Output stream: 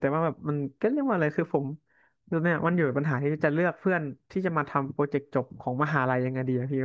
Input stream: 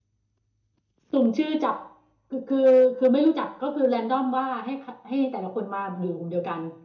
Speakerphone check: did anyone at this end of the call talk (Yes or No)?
Yes